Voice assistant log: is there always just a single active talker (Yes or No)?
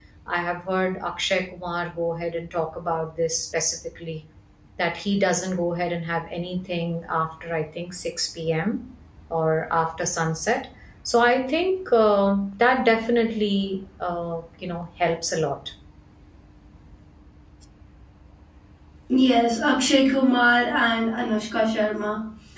Yes